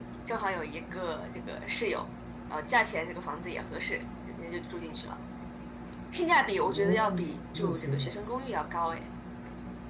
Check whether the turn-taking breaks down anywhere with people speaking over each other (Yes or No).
Yes